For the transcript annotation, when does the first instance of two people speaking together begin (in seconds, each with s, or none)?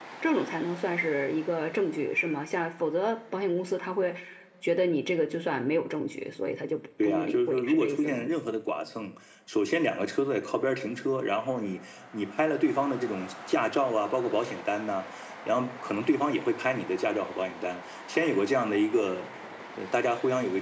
7.0 s